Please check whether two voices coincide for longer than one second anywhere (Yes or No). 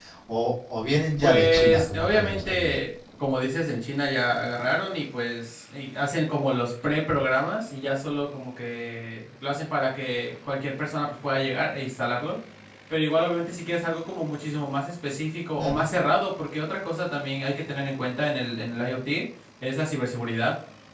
Yes